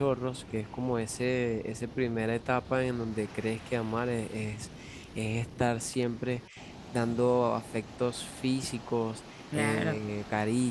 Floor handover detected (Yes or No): No